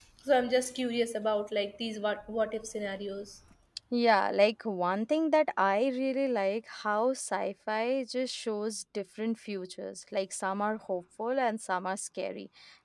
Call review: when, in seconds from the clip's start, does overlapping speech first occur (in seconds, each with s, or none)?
none